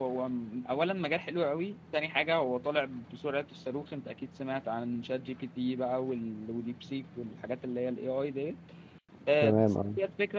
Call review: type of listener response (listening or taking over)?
listening